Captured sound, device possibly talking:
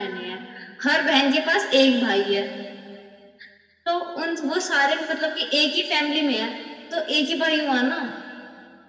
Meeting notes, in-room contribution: none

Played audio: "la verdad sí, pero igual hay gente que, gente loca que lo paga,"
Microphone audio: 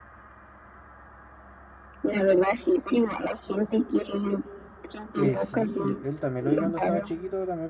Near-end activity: present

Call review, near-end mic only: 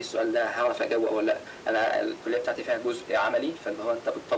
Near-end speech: none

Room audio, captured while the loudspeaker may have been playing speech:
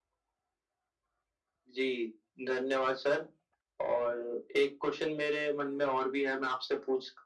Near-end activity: none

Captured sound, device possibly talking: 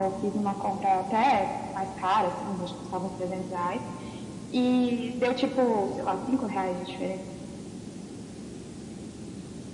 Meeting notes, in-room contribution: none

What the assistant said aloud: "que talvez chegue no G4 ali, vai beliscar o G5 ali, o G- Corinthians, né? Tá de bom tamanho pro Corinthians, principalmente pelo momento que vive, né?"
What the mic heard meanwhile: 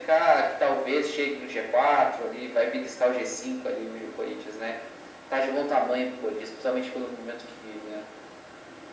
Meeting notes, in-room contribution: none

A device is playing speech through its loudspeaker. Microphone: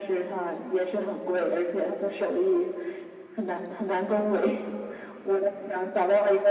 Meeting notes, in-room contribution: none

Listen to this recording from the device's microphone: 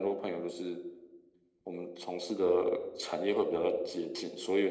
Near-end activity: none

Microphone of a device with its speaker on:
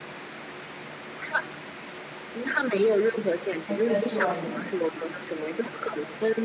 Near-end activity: present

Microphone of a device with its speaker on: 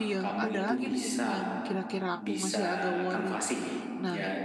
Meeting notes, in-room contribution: present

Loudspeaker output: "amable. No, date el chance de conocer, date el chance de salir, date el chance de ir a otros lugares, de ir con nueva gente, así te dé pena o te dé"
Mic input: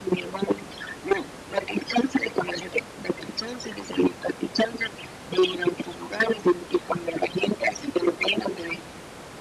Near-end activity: none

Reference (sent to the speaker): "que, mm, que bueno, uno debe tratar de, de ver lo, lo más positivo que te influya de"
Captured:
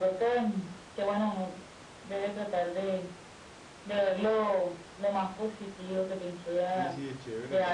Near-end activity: present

